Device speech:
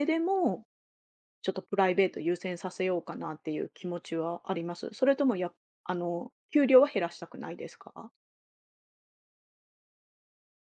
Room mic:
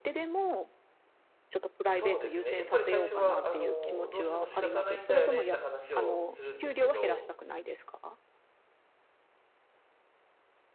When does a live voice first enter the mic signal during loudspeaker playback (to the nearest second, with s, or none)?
2 s